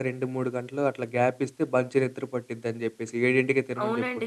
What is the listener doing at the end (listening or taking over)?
taking over